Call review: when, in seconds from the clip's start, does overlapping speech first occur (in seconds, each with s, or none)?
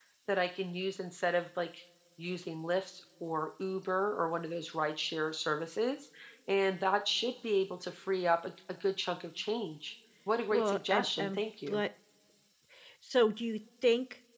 10.5 s